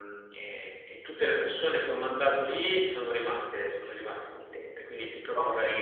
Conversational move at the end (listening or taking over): taking over